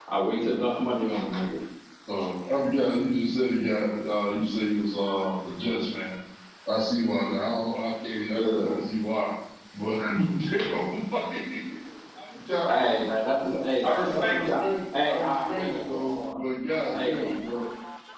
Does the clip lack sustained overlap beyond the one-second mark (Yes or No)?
No